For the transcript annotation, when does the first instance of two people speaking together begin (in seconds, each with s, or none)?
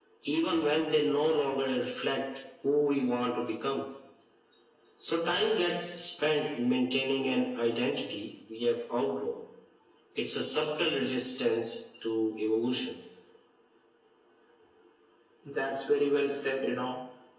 none